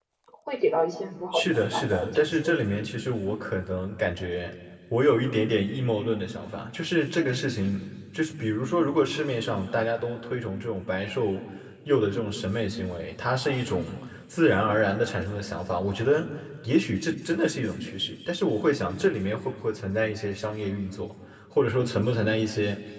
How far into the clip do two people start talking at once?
1.3 s

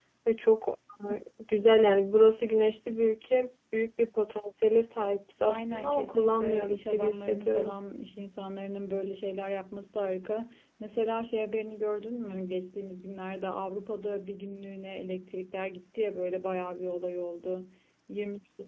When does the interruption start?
5.5 s

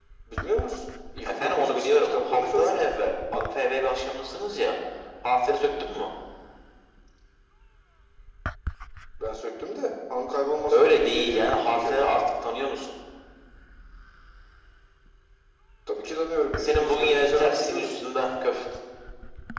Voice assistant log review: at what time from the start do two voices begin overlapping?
1.2 s

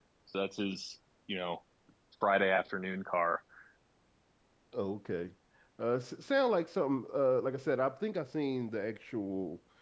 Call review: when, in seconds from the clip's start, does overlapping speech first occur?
none

